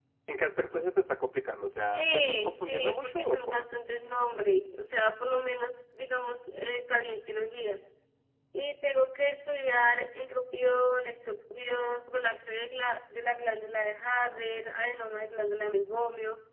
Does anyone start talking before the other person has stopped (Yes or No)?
Yes